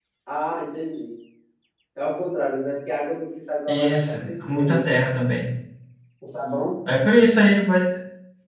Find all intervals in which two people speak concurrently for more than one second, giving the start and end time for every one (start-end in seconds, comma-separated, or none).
3.7-4.9